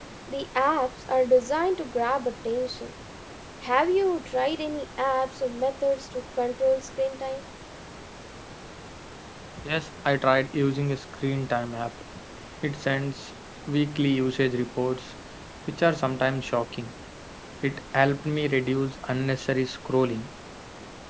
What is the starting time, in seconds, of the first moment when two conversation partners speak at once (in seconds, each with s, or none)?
none